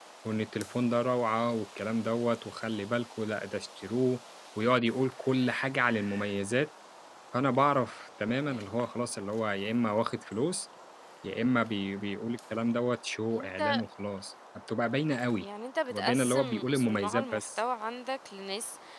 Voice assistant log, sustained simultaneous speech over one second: present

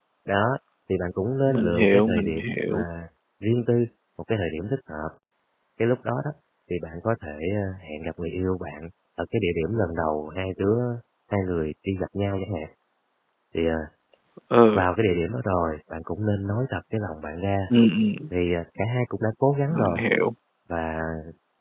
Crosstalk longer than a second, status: present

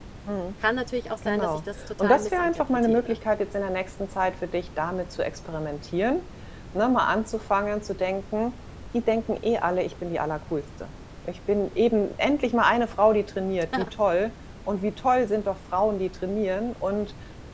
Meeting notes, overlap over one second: present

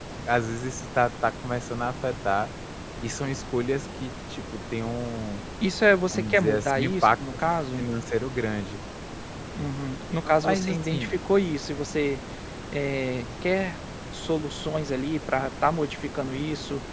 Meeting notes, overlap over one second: present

